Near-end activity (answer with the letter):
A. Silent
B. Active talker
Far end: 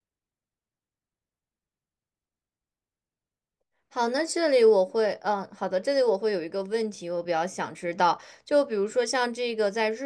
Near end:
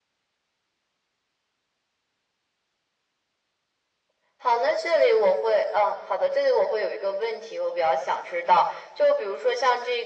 A